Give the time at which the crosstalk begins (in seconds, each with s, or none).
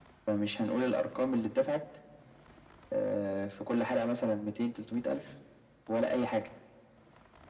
none